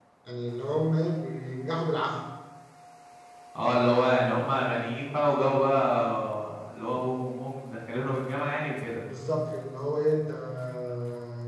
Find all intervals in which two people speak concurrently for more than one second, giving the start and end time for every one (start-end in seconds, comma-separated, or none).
none